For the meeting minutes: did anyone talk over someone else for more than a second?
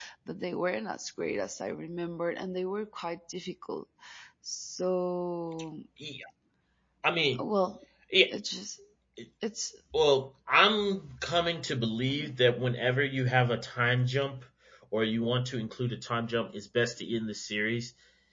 No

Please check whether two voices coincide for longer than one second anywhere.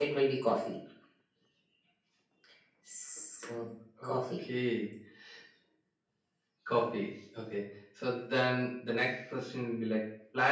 No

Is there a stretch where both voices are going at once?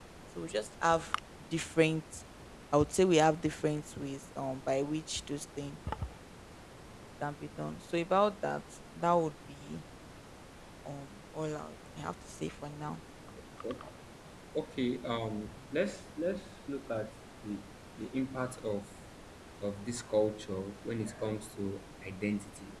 No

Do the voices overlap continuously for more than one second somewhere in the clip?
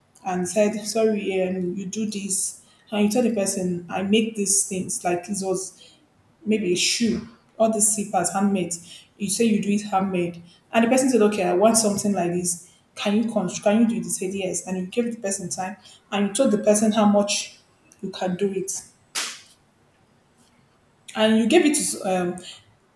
No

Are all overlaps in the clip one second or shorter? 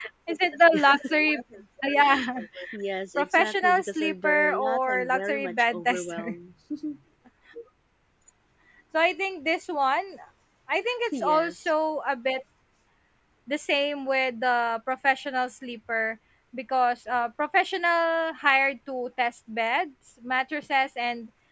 No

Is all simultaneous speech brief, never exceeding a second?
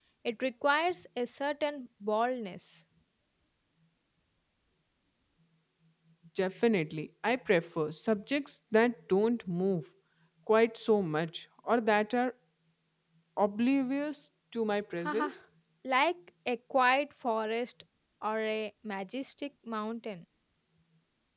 Yes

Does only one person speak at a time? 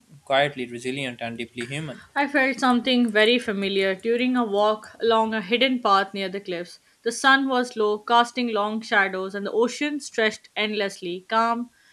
Yes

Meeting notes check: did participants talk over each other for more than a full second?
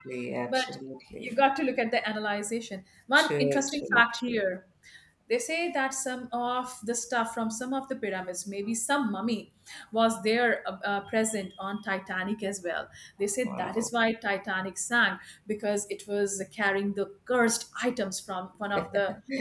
Yes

